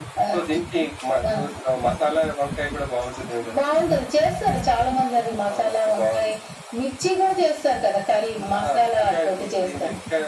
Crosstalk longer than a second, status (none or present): present